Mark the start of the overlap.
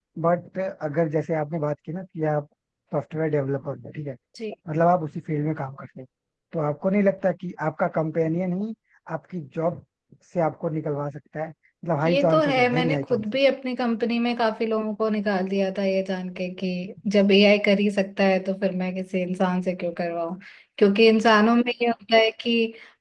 12.1 s

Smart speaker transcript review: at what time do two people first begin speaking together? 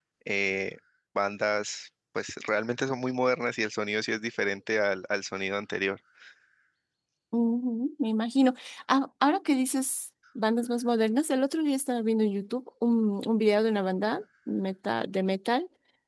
none

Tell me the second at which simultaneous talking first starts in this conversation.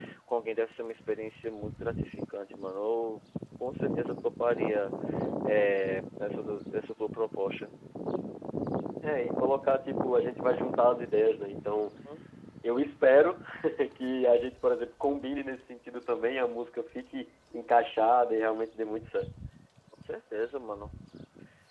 none

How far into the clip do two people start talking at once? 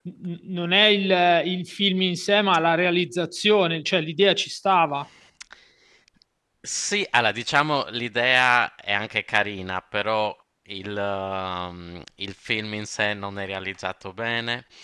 none

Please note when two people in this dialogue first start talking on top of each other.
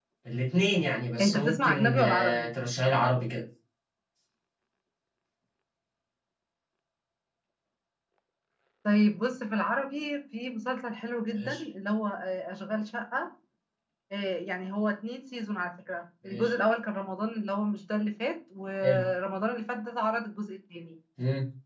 1.2 s

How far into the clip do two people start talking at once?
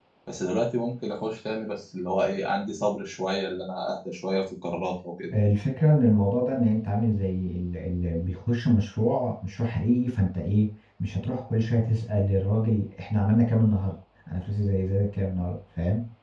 none

